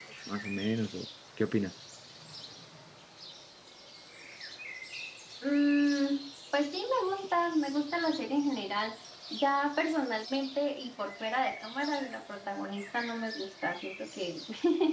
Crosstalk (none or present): none